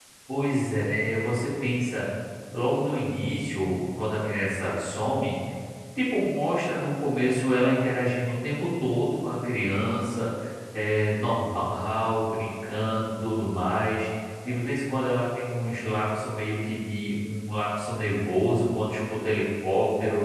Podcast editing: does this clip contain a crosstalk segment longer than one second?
No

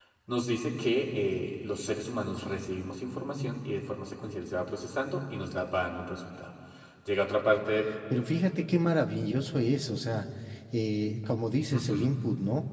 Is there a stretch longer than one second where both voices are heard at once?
No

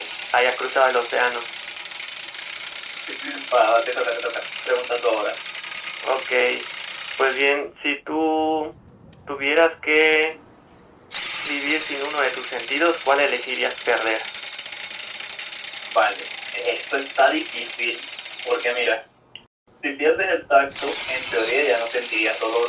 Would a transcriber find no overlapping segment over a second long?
Yes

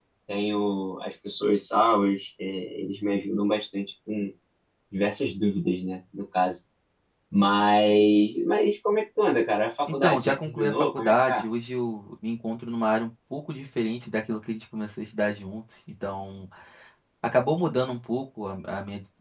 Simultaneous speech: Yes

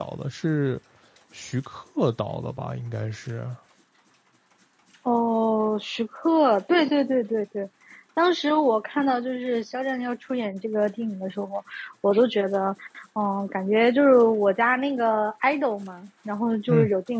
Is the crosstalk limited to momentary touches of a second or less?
Yes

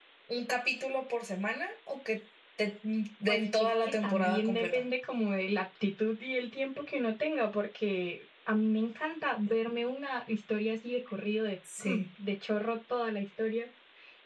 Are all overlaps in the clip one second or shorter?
No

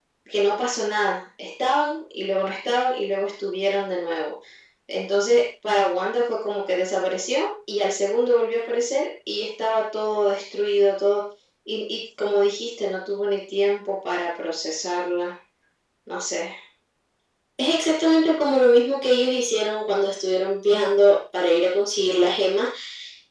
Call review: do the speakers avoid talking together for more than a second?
Yes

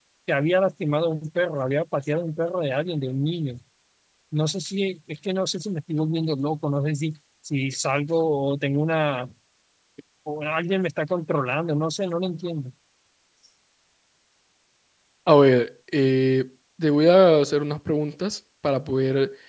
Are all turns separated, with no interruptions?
Yes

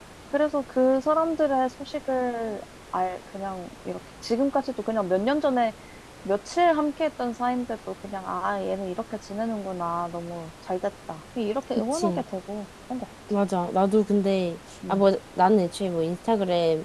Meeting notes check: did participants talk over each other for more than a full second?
No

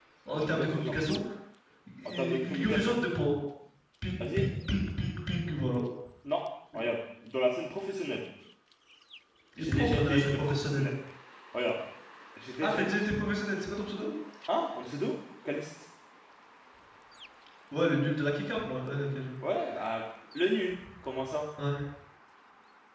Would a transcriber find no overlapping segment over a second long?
No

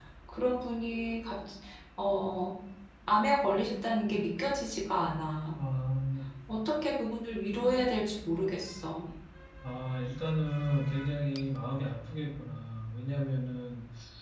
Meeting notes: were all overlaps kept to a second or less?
Yes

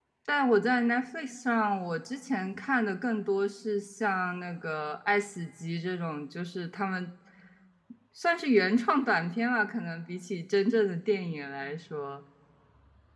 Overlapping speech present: No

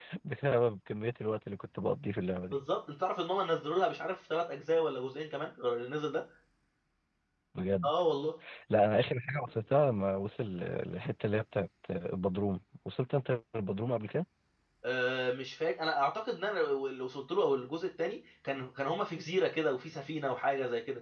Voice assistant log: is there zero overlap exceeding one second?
Yes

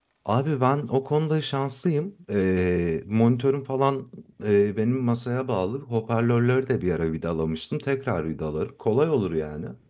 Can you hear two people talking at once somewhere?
No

